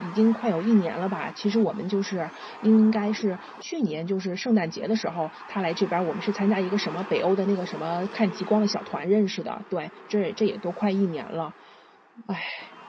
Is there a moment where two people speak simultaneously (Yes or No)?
No